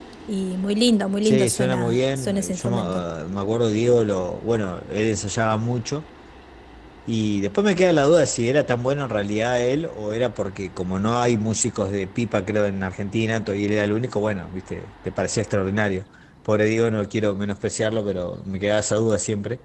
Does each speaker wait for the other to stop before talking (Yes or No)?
No